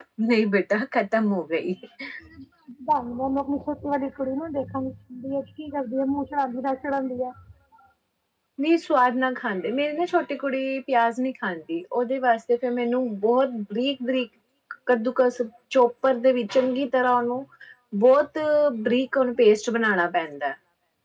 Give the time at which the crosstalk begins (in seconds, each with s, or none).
none